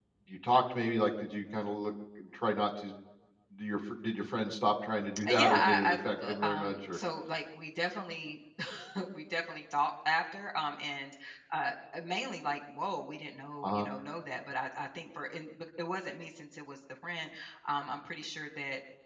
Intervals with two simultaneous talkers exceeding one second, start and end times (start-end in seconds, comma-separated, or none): 5.3-7.0